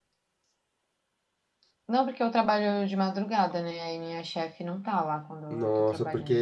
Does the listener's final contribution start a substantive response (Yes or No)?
Yes